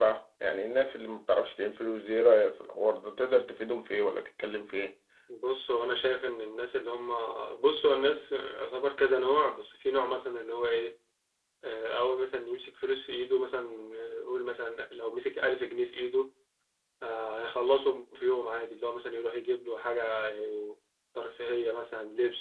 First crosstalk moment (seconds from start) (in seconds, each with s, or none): none